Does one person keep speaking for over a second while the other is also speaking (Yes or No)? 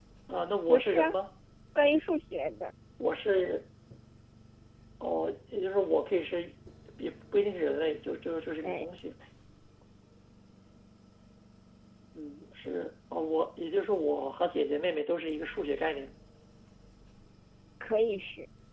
No